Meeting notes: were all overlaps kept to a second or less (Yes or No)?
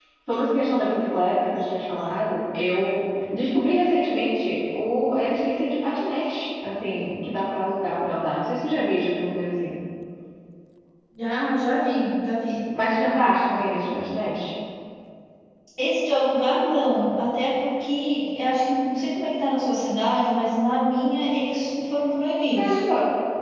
Yes